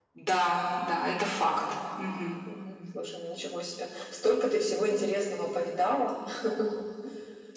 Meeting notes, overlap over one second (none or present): none